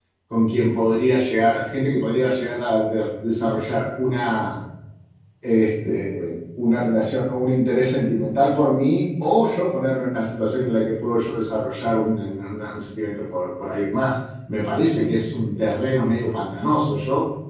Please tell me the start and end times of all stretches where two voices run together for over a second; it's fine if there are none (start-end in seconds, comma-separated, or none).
none